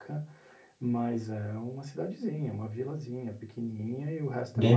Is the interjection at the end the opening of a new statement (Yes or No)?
No